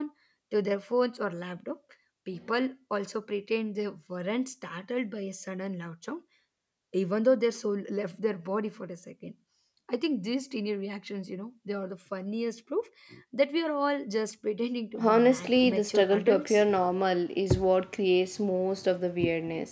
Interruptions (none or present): present